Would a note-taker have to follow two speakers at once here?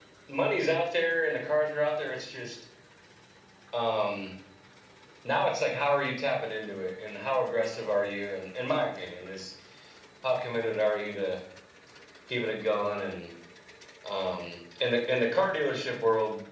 No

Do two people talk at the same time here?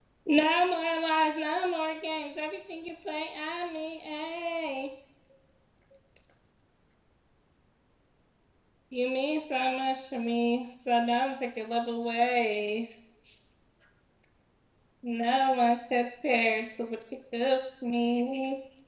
No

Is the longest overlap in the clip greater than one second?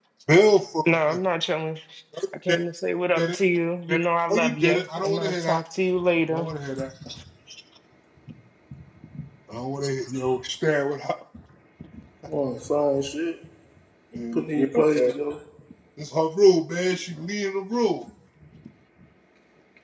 Yes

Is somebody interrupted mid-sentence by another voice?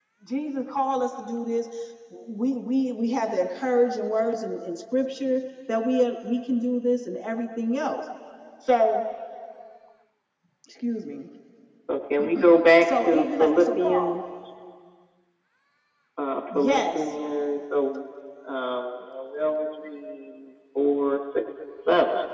Yes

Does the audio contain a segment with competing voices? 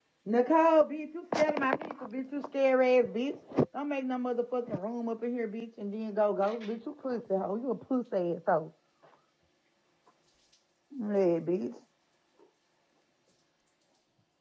No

